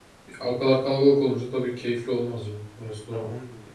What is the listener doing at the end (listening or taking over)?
taking over